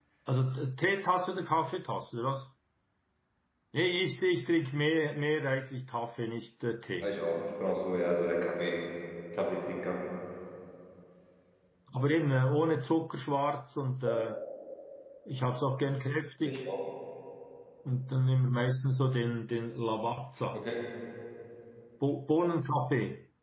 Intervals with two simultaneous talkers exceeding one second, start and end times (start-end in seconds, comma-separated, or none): none